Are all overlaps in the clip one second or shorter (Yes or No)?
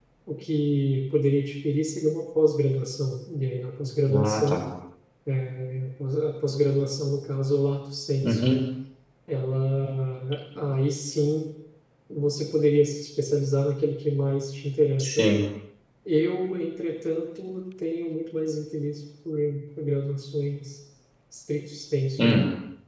Yes